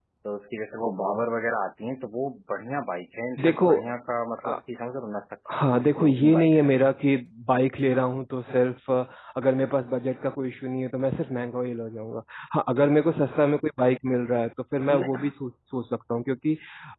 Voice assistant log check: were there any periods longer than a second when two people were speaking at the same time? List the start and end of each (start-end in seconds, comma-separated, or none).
5.5-6.8